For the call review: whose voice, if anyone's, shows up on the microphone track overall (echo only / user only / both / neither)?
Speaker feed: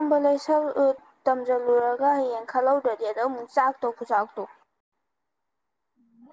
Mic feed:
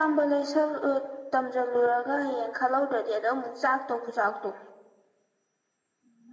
echo only